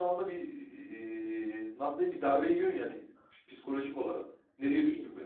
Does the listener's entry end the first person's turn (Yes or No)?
Yes